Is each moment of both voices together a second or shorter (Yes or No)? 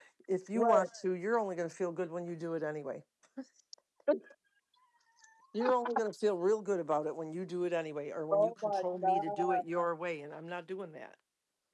No